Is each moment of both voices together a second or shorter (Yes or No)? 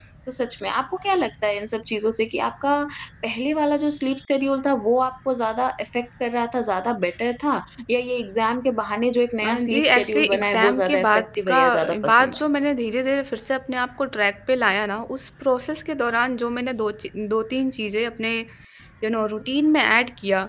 No